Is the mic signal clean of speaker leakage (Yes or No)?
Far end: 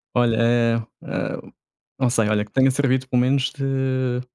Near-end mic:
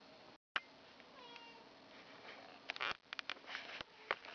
Yes